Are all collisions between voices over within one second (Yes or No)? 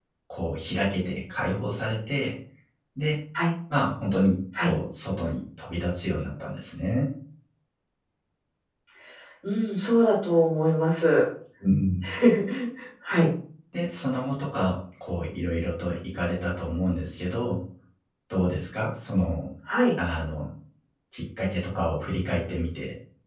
Yes